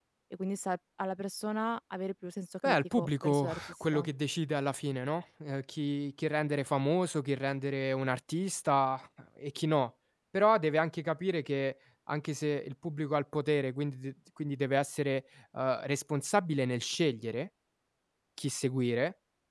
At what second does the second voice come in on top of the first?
2.6 s

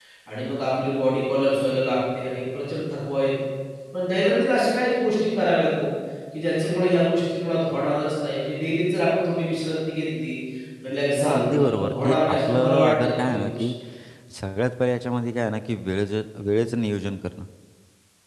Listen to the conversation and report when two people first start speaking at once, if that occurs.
11.2 s

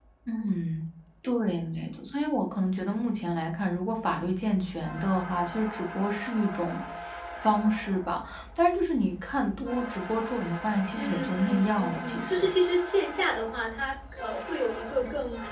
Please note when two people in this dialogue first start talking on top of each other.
10.9 s

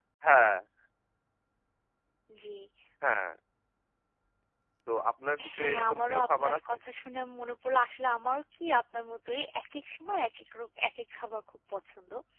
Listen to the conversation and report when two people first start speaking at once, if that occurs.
5.5 s

